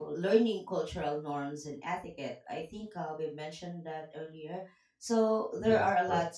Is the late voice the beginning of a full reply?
No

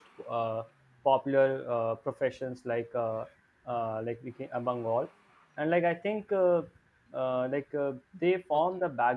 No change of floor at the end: Yes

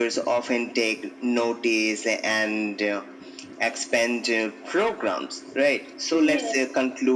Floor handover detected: No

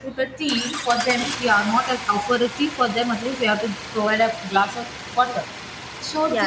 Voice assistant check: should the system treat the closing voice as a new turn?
No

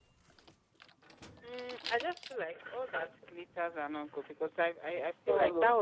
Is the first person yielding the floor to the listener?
No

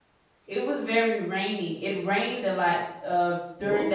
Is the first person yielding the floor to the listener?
No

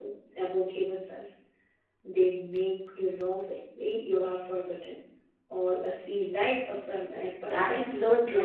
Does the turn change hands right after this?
Yes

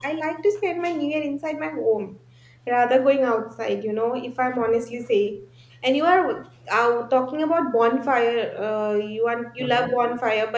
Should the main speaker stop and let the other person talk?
No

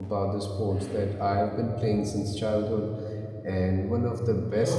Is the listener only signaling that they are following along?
Yes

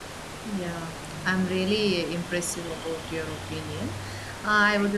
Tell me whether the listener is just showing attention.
Yes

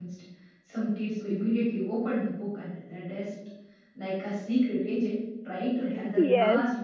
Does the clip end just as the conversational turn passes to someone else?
Yes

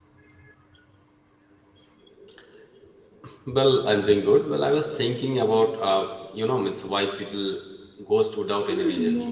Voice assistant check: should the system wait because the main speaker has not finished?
No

